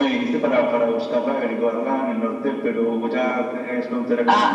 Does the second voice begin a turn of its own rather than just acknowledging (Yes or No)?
Yes